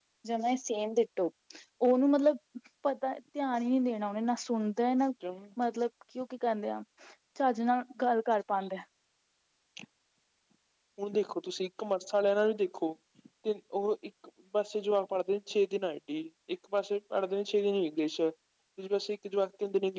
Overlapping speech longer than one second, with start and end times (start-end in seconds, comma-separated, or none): none